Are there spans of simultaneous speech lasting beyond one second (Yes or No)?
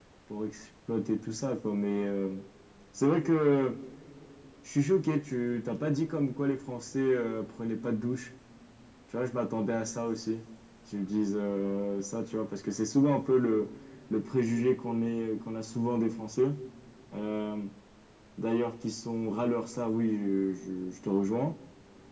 No